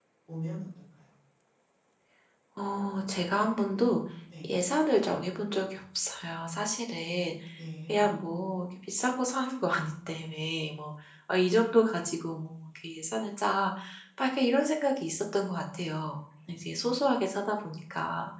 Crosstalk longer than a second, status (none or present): none